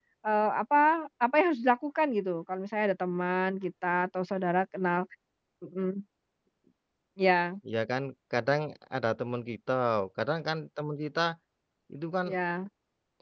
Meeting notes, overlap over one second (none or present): none